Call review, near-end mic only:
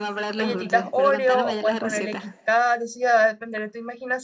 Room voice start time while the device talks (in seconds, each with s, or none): 0.4 s